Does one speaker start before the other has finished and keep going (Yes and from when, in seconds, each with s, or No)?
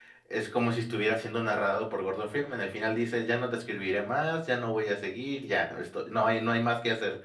No